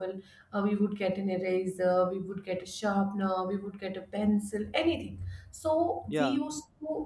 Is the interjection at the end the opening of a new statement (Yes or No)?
No